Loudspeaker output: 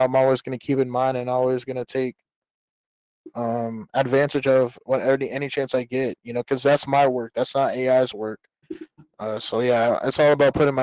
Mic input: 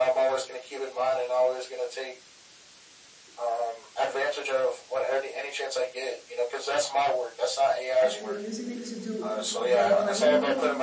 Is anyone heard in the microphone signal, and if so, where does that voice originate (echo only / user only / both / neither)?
both